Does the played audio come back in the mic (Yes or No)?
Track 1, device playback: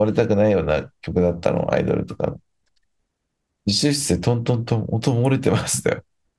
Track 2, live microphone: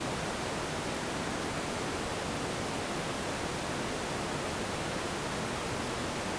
No